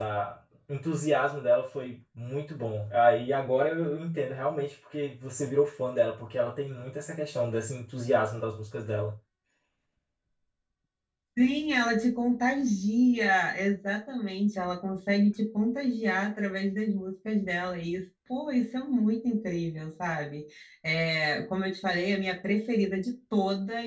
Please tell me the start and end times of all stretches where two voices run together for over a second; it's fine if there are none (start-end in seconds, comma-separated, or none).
none